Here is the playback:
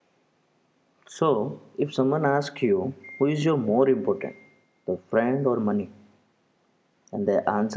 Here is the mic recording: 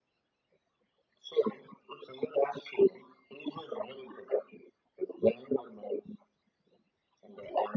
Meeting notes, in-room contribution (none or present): none